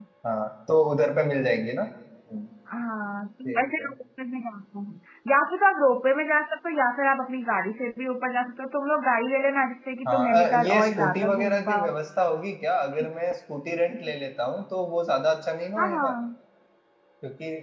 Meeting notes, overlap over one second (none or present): present